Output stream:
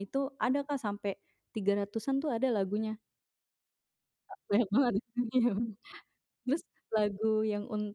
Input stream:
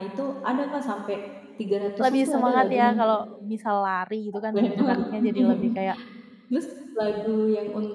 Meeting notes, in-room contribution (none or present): present